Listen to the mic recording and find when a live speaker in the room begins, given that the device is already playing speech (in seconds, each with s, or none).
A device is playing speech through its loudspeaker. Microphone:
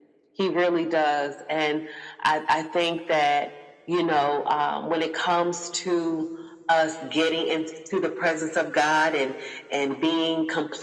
none